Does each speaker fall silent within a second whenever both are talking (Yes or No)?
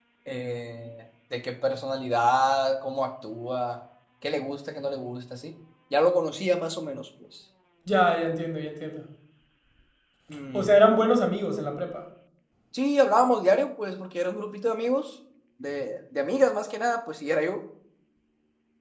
Yes